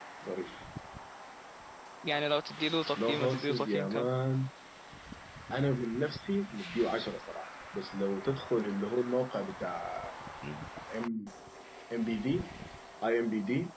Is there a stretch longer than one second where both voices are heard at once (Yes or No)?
Yes